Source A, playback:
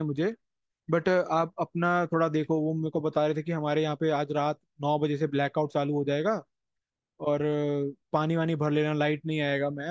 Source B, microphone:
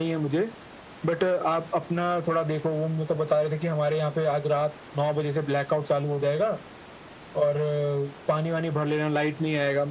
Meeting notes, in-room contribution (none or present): none